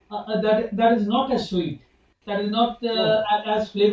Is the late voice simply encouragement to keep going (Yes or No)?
Yes